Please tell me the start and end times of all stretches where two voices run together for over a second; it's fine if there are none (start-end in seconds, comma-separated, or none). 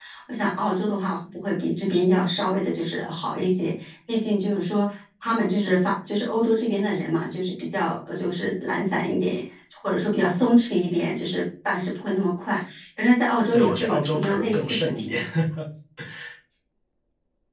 13.5-15.2